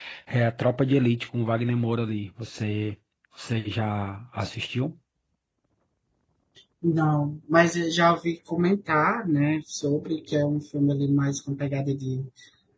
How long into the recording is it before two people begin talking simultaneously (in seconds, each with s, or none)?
none